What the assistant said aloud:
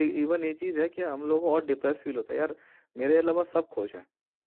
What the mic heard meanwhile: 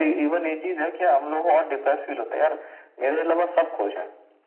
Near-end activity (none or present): none